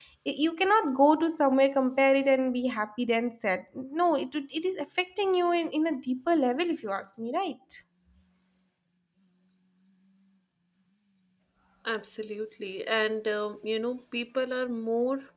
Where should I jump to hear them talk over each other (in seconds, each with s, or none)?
none